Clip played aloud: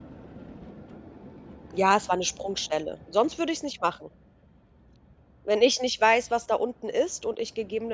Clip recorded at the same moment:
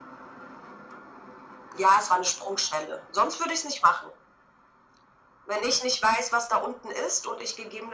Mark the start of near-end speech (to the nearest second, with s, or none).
none